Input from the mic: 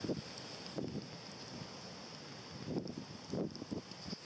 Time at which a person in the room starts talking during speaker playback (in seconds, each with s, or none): none